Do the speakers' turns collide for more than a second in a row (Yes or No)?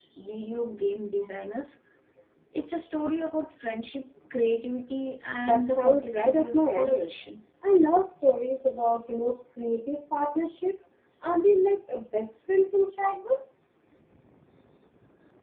Yes